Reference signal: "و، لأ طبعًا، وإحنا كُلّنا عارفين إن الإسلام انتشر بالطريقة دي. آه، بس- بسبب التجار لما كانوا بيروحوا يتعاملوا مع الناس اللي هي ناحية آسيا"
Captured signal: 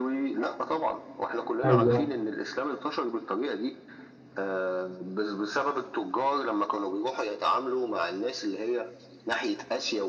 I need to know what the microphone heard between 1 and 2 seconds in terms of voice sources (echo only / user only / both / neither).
both